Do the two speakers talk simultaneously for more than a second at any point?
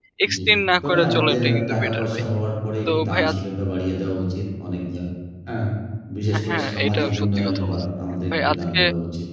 Yes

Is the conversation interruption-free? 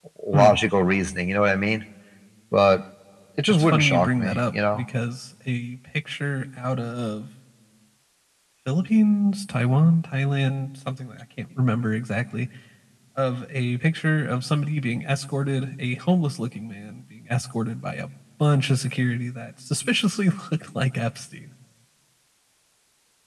No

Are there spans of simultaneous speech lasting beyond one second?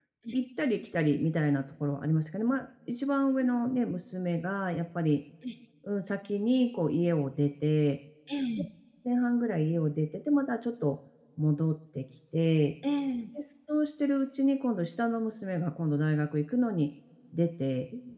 No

